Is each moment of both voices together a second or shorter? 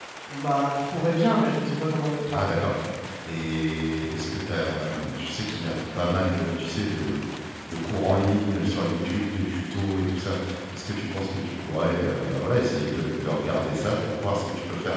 Yes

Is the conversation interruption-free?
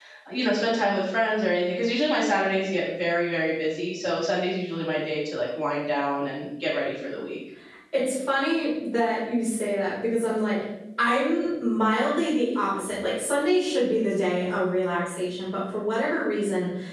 Yes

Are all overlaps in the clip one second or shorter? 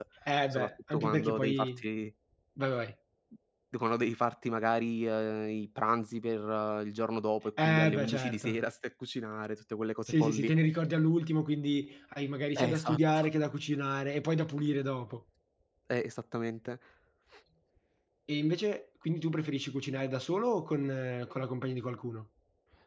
No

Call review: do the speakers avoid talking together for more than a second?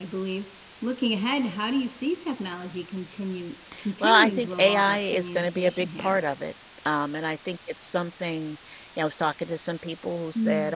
No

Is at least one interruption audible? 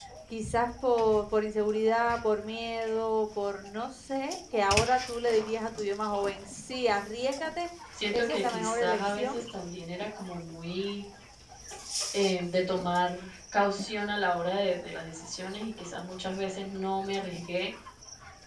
Yes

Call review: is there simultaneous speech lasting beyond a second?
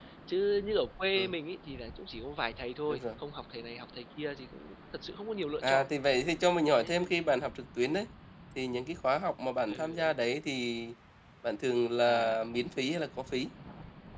No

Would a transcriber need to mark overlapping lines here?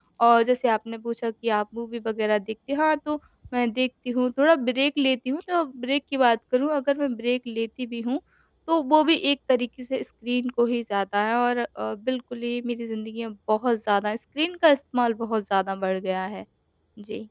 No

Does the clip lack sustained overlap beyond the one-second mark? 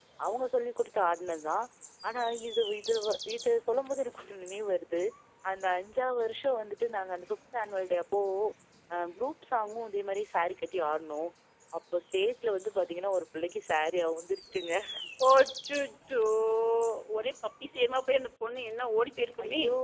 Yes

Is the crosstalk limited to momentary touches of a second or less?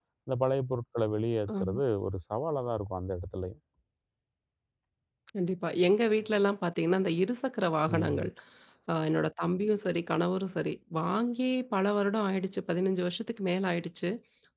Yes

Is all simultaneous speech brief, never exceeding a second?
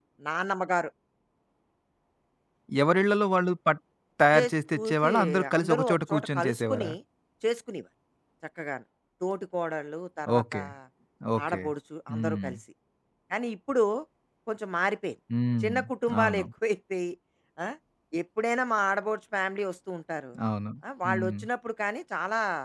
No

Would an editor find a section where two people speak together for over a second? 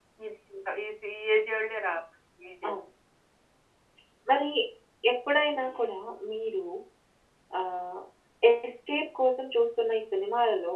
No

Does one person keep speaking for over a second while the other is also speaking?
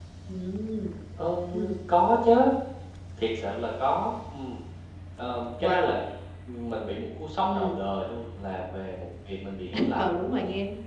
No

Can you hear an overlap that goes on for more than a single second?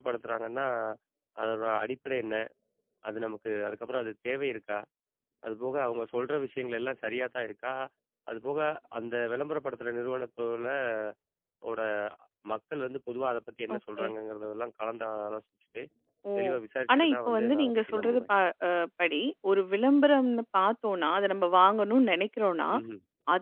Yes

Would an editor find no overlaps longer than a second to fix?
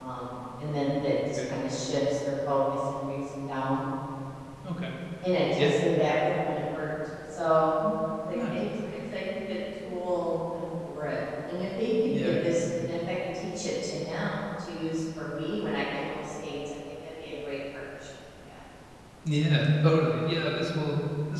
Yes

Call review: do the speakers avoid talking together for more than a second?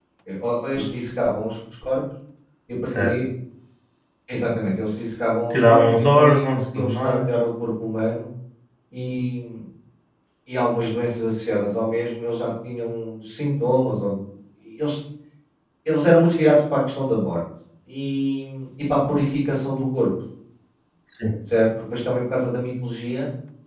No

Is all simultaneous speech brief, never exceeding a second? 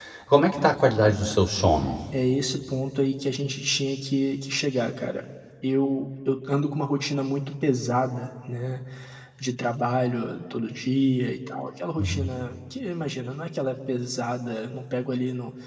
Yes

